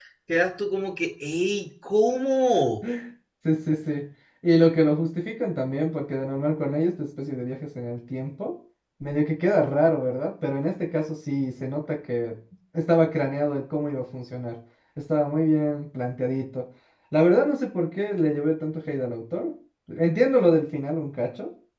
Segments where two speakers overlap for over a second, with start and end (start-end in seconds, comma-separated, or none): none